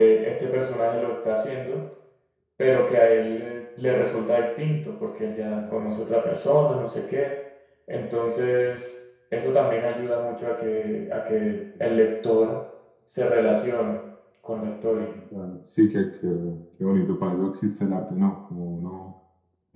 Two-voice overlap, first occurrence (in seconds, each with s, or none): none